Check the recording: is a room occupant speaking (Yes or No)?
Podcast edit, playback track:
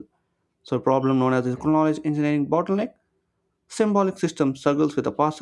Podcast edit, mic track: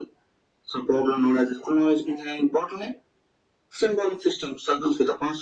No